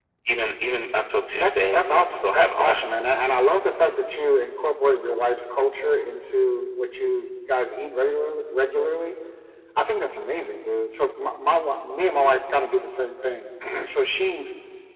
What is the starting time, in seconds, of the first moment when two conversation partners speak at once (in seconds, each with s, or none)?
1.4 s